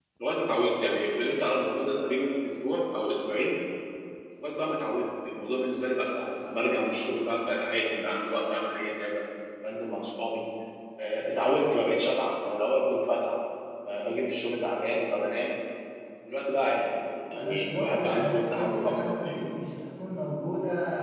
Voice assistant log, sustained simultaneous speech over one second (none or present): present